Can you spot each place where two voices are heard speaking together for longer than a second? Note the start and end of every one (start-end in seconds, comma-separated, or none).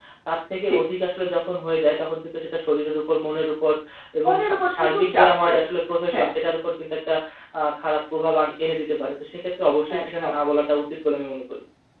4.2-5.6